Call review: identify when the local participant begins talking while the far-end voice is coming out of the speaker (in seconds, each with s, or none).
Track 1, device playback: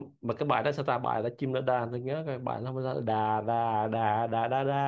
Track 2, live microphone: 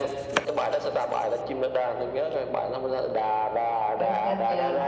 4.0 s